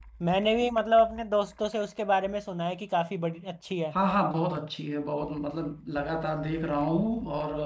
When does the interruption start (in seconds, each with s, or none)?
none